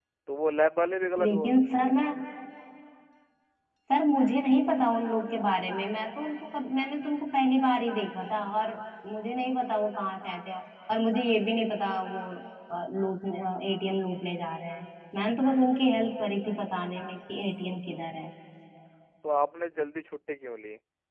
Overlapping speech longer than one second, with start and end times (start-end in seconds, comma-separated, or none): none